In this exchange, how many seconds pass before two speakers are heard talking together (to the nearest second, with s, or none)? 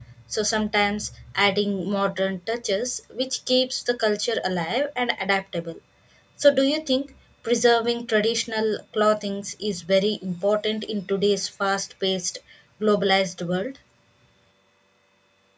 none